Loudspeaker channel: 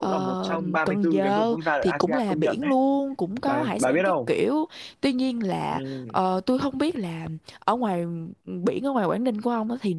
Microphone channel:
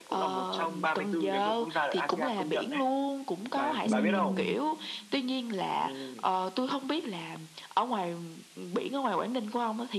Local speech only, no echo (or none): ừm,